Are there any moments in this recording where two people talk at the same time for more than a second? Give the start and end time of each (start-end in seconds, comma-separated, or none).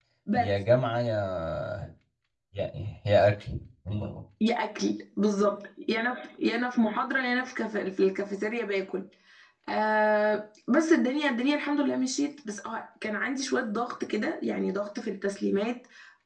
none